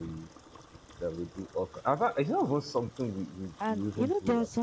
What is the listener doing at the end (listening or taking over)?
taking over